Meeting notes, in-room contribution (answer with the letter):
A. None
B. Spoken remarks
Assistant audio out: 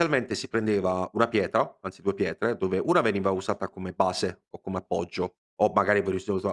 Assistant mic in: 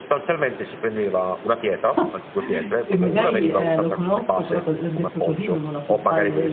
B